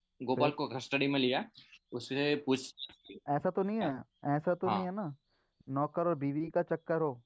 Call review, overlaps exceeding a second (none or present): none